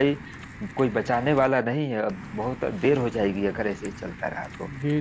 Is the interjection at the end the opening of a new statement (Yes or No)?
Yes